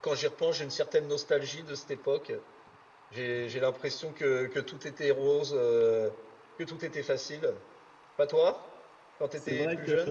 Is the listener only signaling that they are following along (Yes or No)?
No